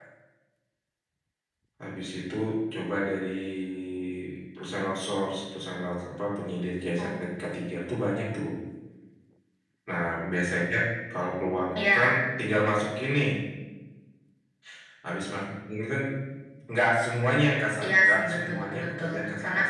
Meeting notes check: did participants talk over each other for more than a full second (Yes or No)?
Yes